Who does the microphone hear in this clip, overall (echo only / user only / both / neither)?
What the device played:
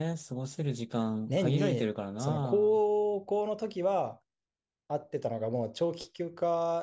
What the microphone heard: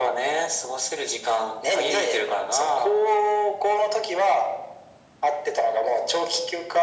echo only